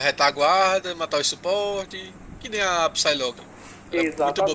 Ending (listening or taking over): taking over